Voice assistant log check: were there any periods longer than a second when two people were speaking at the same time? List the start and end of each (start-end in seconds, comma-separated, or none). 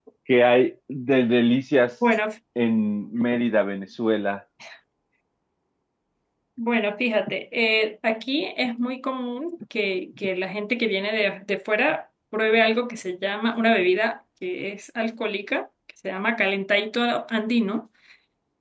none